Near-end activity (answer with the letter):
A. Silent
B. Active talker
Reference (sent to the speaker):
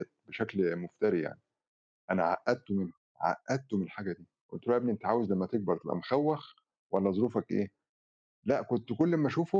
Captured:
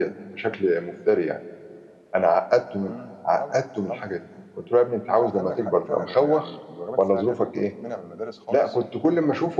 B